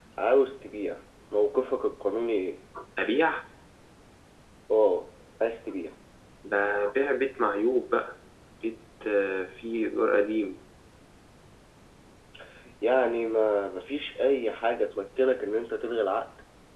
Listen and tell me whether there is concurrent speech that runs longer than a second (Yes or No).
No